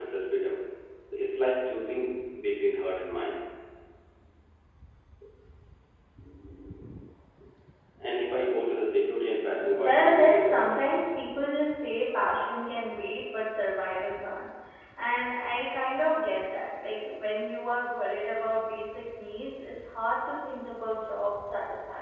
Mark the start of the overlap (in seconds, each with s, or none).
9.5 s